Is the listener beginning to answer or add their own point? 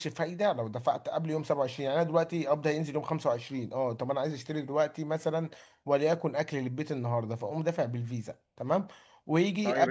Yes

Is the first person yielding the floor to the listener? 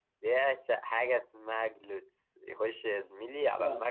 No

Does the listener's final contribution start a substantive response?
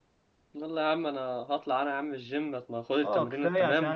Yes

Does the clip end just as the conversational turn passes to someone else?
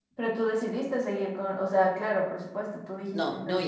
Yes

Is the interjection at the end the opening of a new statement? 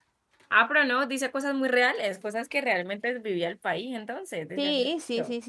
Yes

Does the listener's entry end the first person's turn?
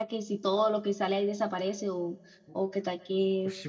Yes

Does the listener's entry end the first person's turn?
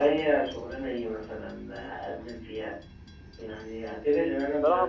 Yes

